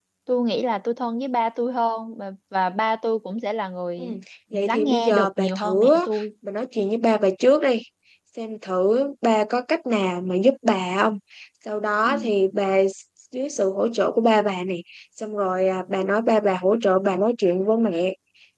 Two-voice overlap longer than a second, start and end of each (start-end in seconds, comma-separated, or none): 4.5-5.9